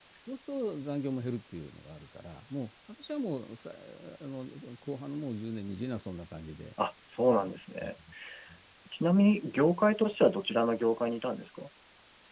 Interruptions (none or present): none